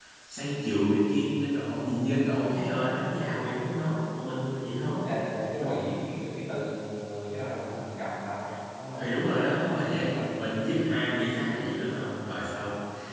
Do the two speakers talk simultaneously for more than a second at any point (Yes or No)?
Yes